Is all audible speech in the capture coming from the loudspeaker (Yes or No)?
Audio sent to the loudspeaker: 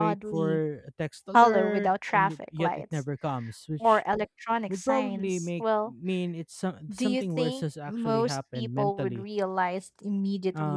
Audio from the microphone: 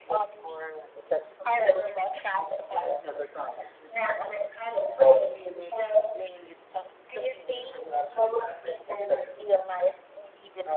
Yes